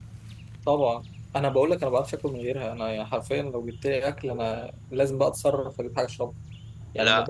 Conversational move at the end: listening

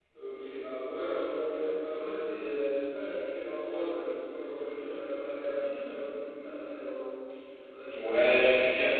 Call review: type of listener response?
taking over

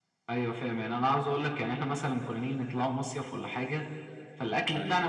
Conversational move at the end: listening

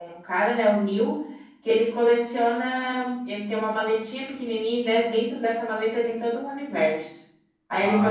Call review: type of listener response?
listening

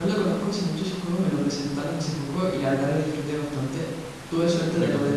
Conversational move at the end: listening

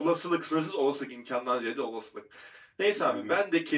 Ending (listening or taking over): listening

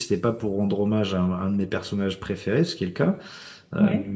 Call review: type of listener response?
listening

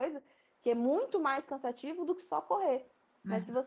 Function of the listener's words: listening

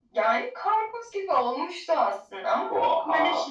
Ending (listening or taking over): listening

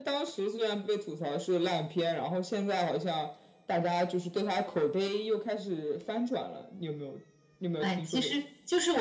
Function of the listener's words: taking over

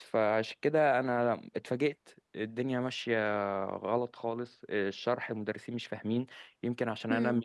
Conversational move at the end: listening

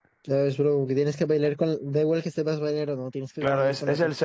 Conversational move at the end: taking over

